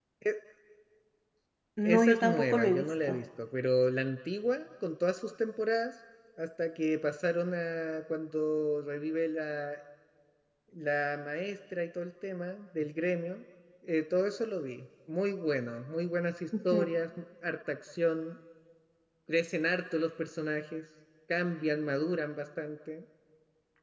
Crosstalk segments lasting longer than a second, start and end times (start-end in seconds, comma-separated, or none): 1.8-3.2